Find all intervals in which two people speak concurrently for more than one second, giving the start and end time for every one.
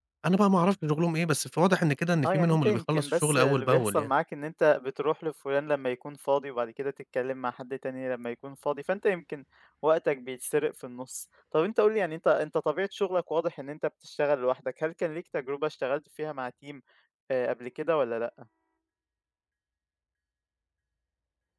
2.2-4.1

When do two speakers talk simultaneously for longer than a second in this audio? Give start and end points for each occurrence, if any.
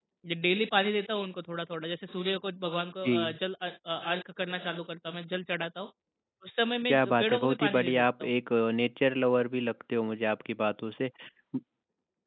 6.9-8.3

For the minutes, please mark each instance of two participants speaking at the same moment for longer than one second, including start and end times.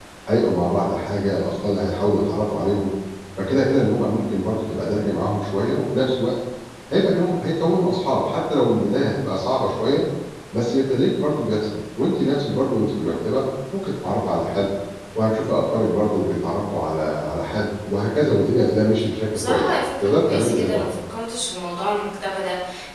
19.3-20.8

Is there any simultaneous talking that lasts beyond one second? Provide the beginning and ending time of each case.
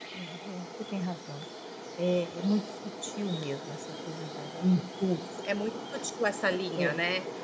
none

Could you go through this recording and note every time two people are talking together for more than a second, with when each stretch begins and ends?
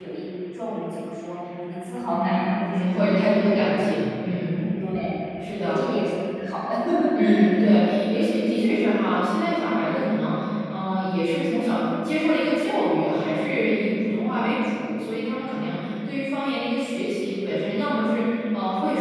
2.0-3.7

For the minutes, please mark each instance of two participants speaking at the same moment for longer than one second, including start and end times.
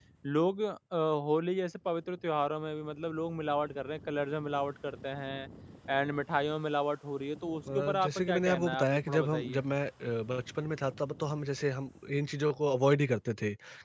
7.8-9.6

